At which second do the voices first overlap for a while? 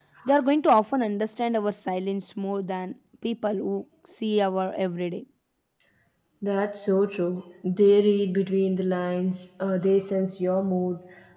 none

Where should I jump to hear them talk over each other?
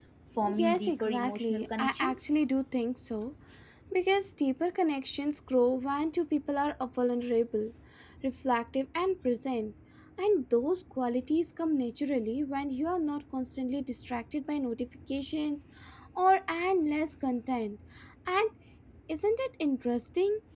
1 s

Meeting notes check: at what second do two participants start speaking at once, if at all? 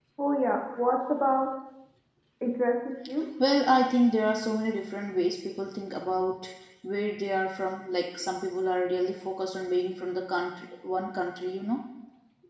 none

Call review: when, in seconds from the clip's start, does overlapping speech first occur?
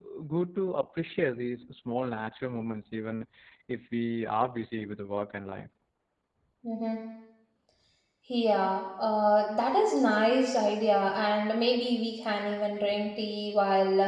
none

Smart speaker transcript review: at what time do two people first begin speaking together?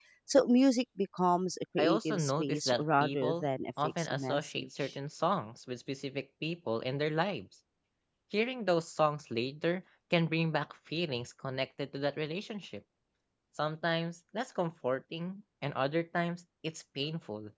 2 s

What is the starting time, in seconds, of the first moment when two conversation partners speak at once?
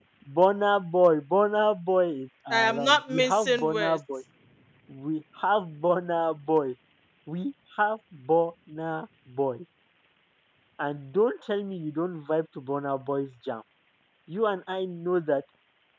3 s

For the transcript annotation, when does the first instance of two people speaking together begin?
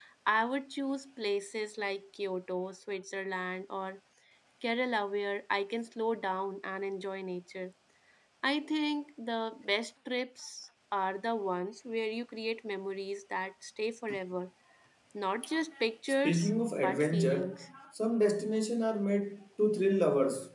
16 s

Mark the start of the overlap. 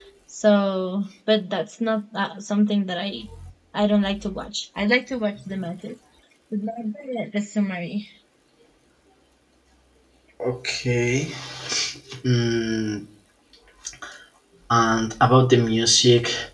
none

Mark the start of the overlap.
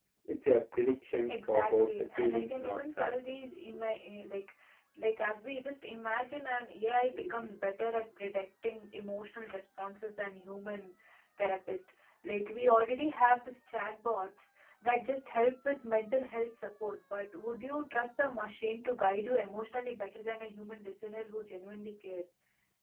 1 s

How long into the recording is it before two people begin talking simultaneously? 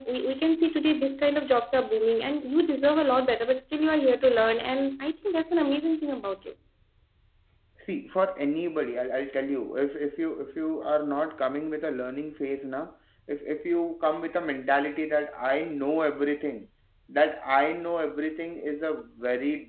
none

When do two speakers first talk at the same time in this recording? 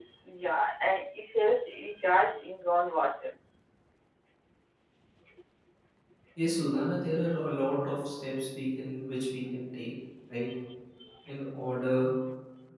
none

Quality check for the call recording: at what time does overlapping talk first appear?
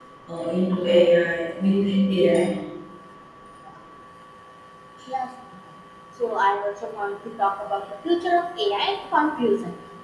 none

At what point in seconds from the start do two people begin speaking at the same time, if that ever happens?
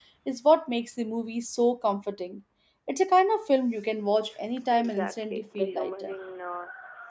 5 s

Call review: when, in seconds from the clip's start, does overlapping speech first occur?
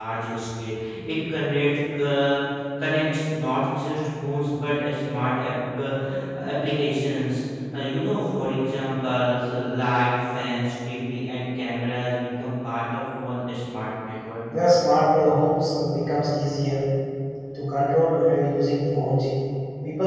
none

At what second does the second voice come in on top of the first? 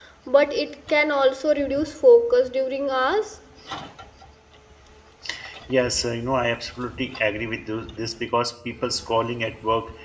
none

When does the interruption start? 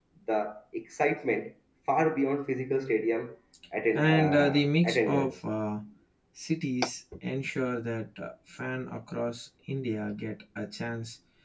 4 s

